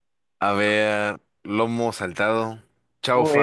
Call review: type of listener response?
taking over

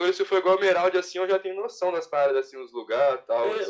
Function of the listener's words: taking over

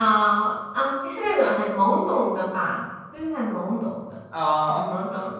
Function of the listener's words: listening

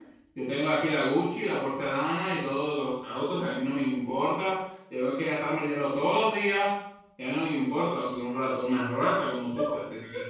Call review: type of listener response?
taking over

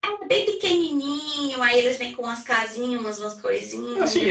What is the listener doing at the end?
taking over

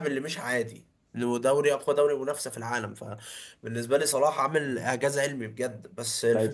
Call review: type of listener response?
taking over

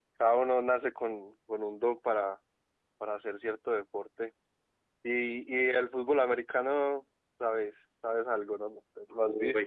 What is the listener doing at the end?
taking over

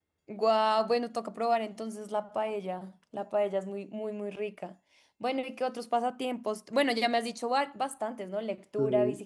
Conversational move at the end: listening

